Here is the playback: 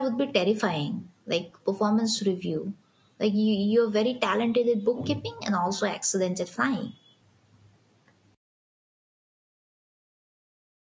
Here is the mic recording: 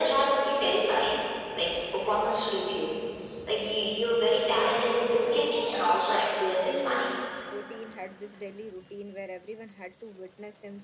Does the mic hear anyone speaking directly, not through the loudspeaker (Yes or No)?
Yes